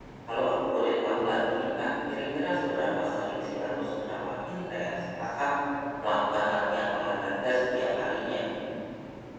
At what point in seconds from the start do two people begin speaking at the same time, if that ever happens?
none

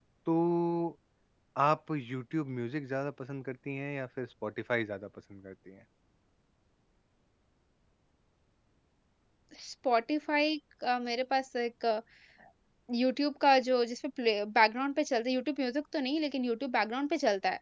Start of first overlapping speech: none

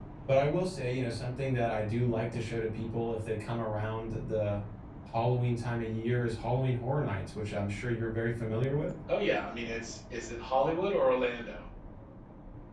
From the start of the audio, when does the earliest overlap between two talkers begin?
none

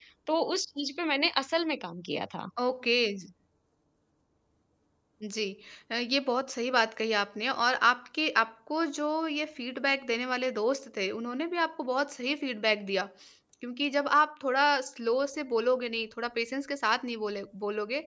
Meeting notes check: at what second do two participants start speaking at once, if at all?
none

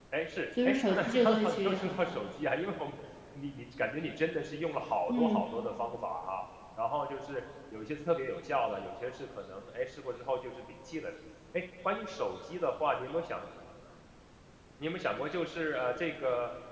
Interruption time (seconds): 0.7 s

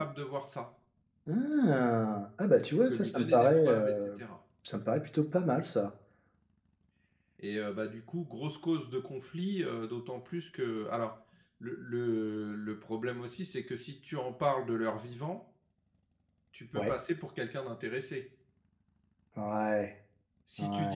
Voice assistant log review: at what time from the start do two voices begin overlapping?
2.7 s

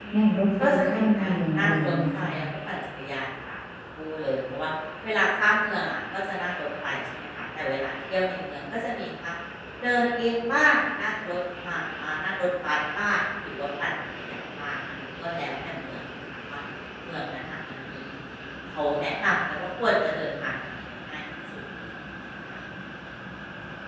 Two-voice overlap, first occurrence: 0.6 s

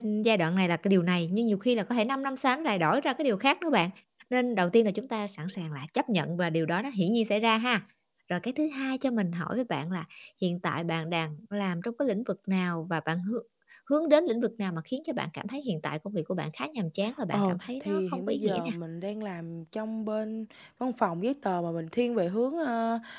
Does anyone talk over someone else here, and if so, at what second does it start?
17.3 s

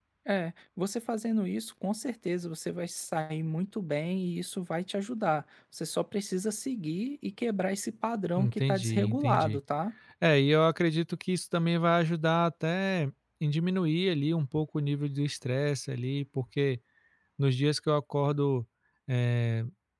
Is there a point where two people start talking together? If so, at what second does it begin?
8.4 s

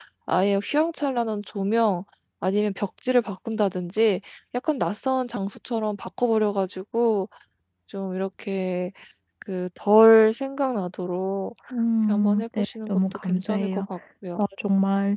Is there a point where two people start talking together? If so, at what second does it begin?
12.1 s

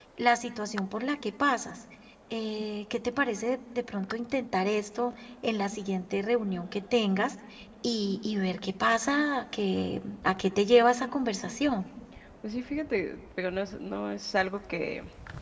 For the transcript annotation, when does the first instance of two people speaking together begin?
none

